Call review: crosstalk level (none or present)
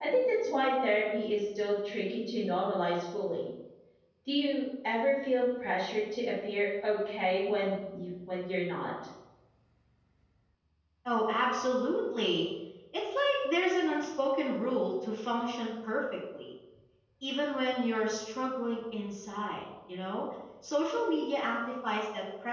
none